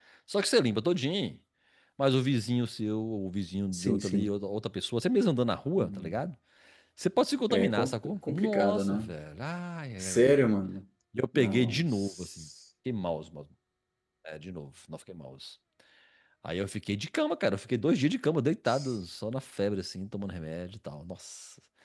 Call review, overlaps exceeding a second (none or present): present